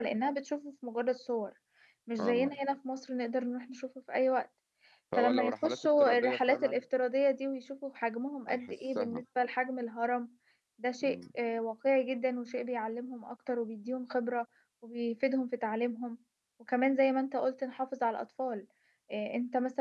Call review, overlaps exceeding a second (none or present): present